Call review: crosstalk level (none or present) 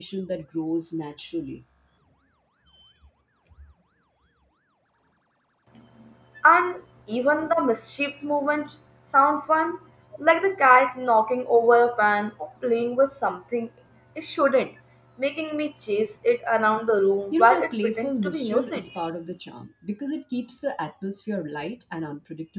present